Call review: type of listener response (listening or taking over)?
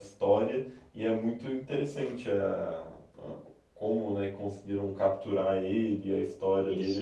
taking over